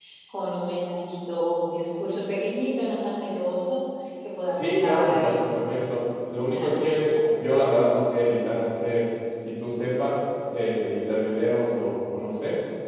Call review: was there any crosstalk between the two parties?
Yes, from 4.6 s

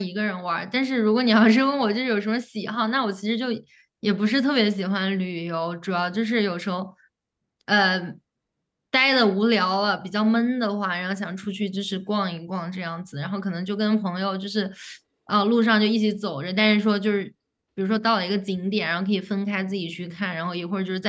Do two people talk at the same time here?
No

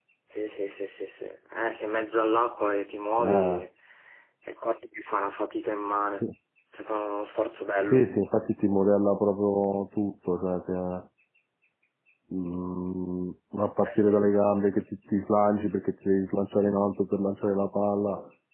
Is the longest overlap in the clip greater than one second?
No

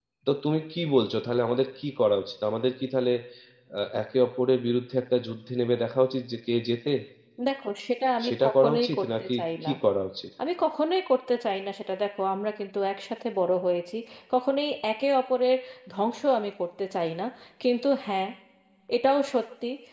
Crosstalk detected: Yes, from 8.2 s

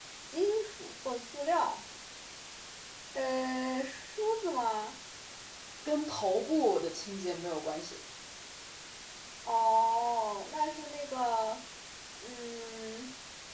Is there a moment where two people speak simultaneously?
No

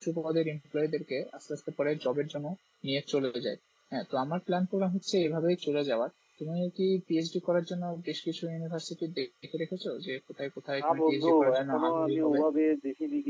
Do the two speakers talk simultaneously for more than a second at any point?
Yes, from 10.8 s

